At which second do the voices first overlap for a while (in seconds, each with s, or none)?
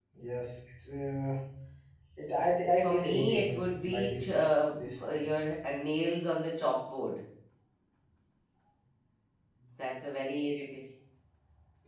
2.8 s